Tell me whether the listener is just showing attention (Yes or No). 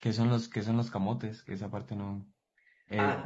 No